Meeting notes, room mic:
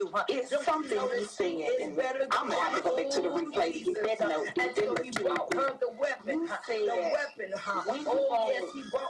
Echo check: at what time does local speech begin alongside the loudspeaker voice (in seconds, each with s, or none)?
none